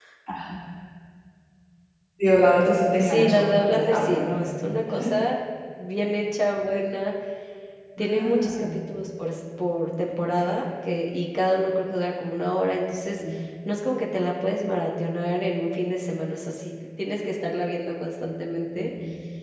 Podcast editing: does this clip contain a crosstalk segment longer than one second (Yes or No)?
Yes